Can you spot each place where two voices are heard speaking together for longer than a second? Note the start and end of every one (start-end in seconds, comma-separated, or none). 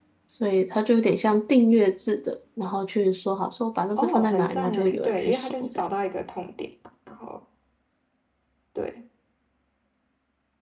4.0-5.7